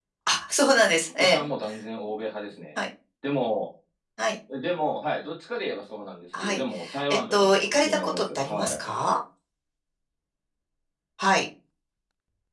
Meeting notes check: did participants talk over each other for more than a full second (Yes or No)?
Yes